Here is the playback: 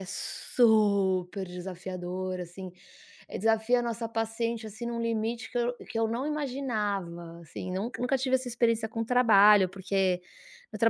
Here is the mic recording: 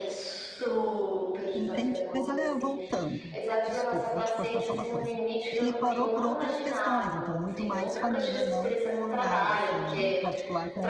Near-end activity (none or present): present